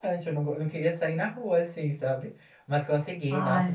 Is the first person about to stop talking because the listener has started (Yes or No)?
No